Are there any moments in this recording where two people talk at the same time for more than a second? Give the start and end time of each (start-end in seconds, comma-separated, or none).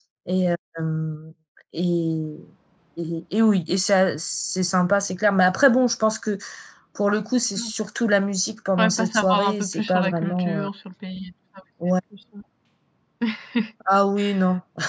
8.8-10.7